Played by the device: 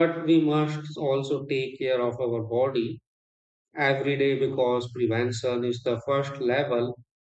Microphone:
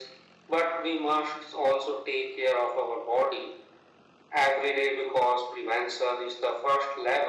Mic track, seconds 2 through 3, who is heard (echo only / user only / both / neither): echo only